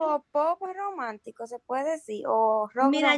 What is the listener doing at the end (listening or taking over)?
taking over